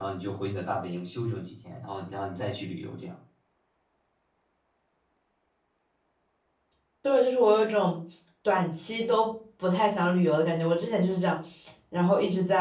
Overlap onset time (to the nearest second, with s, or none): none